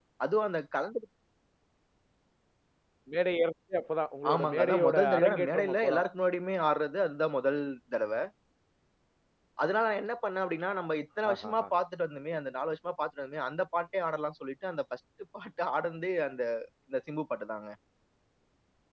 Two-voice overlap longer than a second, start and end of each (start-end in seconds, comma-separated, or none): 4.3-6.0